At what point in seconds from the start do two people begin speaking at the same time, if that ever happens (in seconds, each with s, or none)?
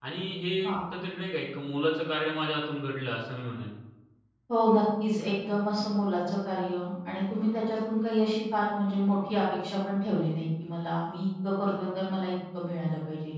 none